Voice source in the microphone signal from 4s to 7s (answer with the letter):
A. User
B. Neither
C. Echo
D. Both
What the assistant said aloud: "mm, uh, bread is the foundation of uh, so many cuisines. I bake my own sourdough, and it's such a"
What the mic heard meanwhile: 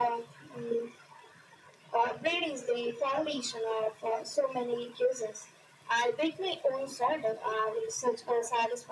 C